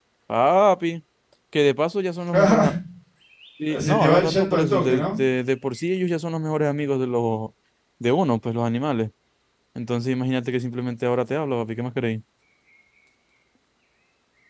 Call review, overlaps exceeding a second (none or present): present